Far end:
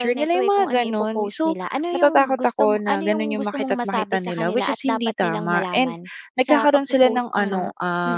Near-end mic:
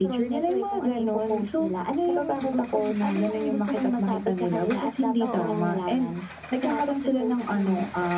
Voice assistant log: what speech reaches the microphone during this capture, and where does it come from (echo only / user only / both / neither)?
both